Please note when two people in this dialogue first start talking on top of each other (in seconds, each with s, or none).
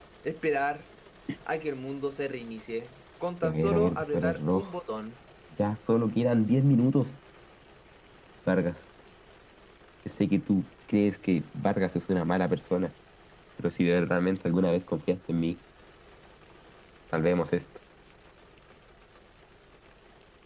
3.4 s